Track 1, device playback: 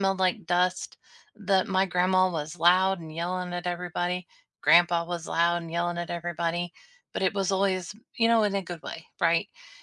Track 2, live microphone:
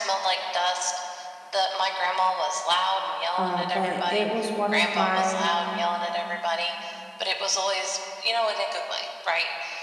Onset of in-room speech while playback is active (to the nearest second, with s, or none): 3 s